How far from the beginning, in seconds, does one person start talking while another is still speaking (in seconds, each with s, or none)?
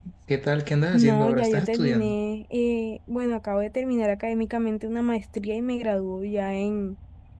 0.9 s